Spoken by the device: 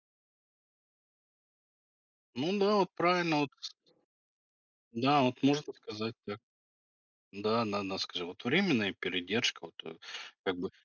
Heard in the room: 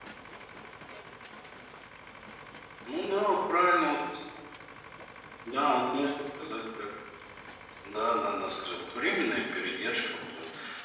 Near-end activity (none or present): none